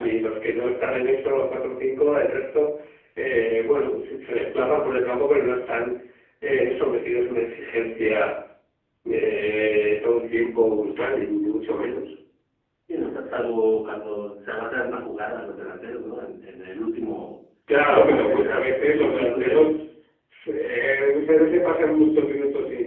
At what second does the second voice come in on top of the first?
17.7 s

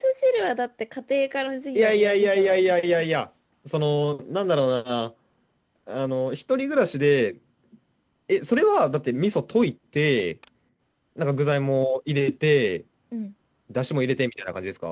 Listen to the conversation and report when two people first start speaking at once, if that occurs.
1.8 s

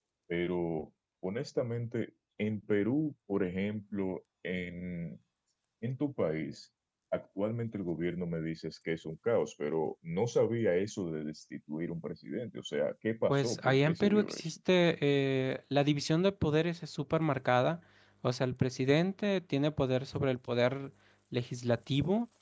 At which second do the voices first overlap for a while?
13.3 s

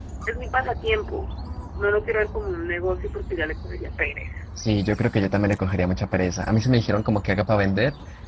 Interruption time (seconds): none

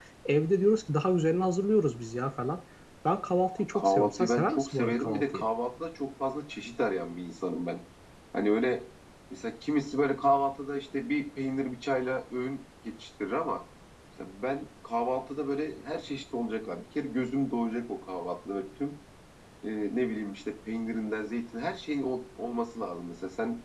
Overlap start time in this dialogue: 3.6 s

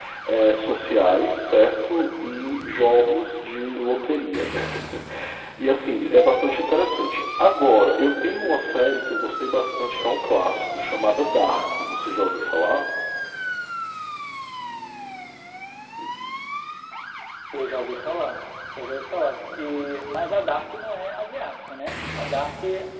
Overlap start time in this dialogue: none

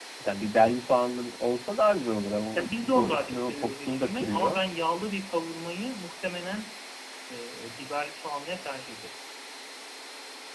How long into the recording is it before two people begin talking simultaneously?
2.5 s

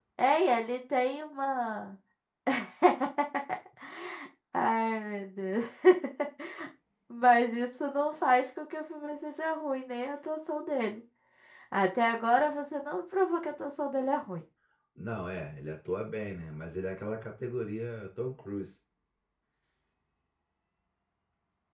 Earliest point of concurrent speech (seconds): none

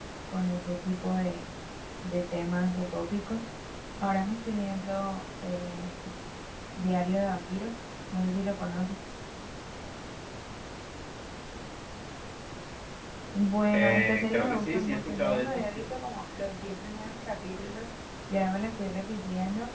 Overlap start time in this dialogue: 13.7 s

